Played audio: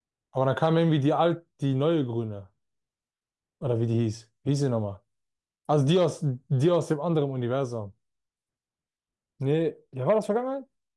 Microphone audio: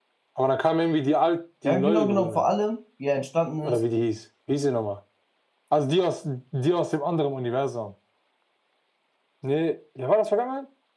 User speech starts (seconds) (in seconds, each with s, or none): 1.6 s